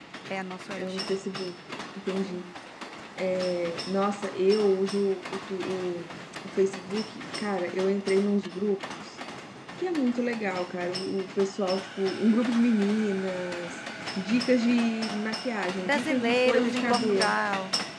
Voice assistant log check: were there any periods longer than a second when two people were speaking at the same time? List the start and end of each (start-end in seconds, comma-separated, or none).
15.8-17.4